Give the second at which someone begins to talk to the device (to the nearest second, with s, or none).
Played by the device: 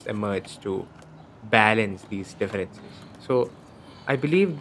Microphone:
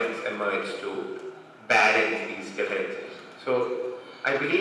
none